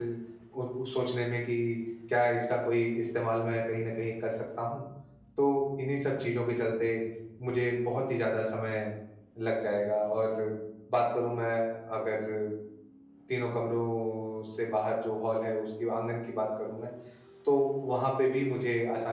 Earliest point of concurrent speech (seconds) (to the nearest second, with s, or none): none